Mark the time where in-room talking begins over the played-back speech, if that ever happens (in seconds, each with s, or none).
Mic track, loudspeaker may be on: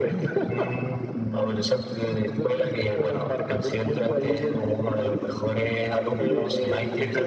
6.2 s